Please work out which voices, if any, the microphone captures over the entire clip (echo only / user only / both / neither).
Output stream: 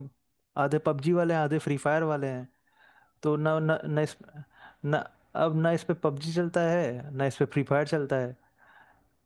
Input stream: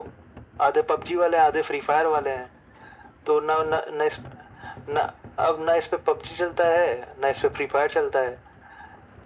echo only